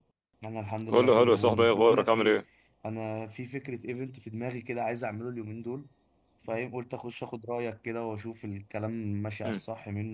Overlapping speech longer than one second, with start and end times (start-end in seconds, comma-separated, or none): 0.9-2.4